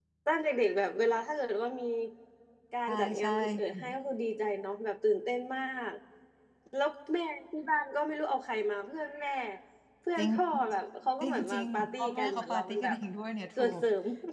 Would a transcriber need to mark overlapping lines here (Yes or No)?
Yes